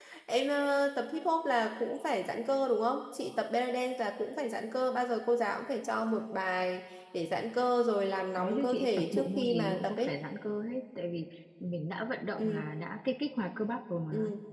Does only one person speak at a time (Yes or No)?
No